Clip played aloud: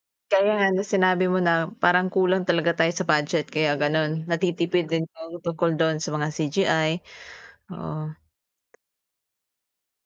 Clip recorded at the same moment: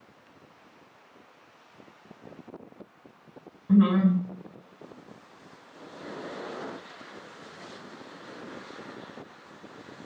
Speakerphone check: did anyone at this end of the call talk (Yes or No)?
Yes